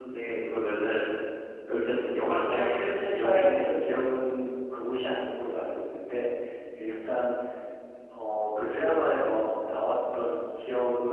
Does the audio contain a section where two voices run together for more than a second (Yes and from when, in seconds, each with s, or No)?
Yes, from 2.4 s